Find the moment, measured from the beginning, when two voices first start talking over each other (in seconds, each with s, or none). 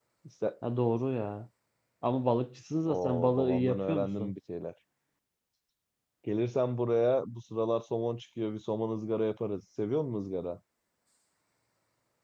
2.9 s